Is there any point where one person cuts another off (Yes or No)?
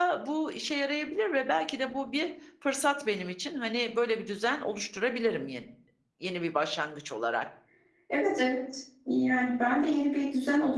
No